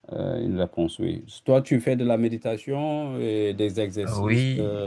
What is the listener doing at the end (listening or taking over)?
taking over